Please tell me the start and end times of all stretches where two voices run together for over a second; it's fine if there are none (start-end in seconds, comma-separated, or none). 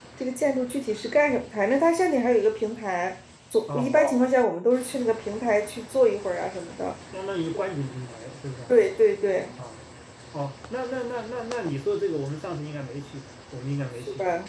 none